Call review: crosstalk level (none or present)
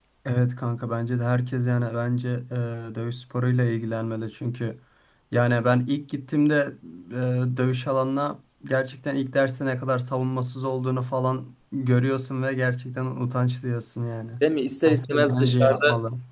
present